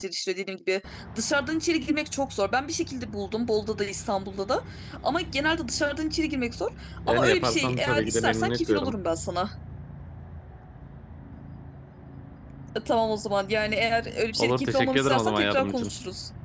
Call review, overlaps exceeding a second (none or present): present